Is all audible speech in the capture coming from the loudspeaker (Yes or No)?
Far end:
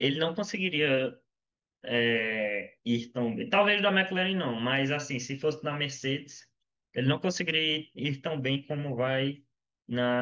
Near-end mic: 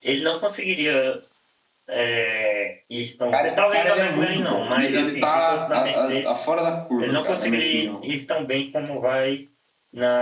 No